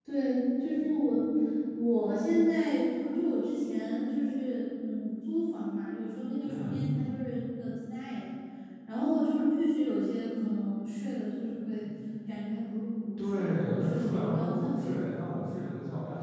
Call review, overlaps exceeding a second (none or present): present